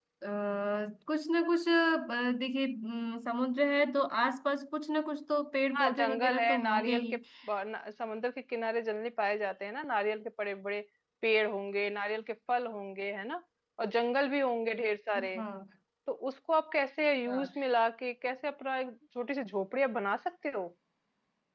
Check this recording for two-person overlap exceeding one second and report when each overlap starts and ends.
5.7-7.2

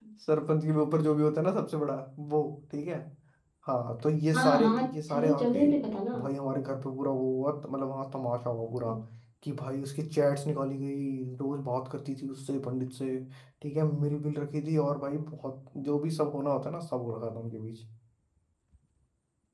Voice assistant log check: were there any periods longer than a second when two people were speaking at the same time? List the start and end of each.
4.3-5.7

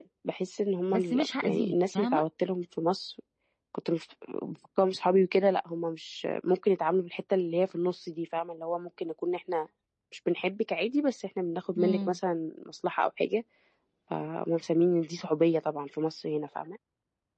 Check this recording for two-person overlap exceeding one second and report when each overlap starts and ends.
0.9-2.2

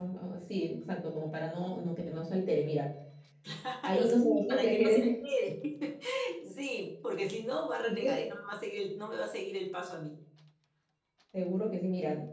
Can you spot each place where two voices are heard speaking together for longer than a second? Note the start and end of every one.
3.8-5.2

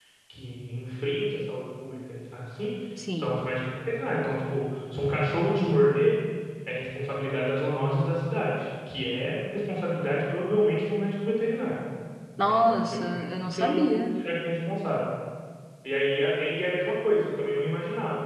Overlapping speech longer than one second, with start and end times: 12.4-14.1

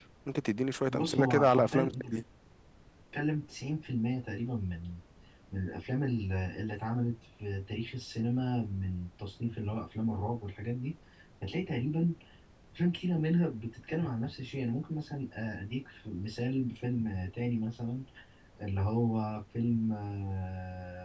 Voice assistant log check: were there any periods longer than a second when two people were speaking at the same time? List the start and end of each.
0.9-2.2

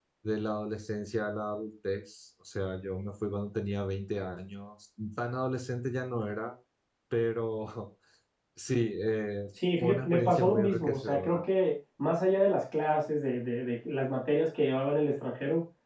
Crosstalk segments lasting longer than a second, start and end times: 9.8-11.4

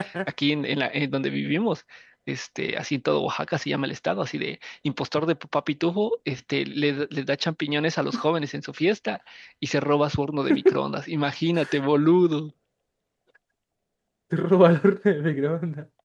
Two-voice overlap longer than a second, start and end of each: none

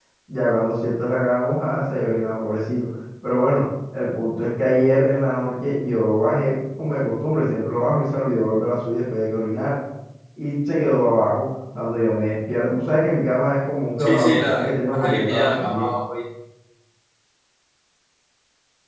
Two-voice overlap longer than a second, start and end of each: 14.0-15.9

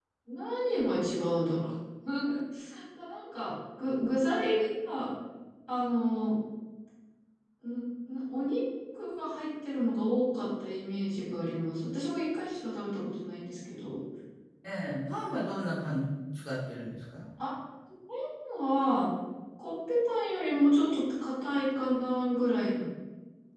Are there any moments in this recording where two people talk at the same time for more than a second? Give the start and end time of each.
none

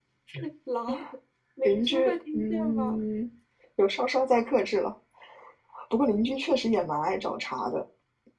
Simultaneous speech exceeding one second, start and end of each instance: 1.6-3.0

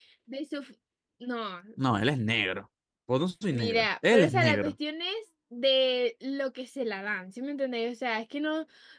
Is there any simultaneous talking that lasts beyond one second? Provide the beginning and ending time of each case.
3.5-4.7

